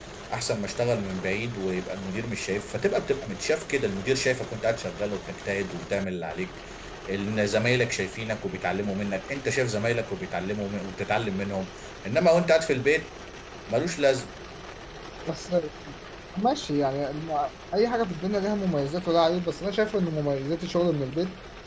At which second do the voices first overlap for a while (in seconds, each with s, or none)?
none